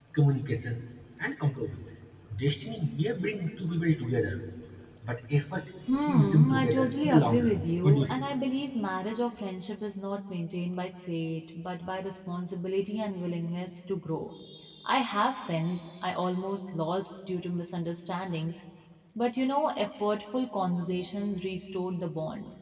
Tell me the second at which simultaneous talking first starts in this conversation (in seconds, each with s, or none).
5.9 s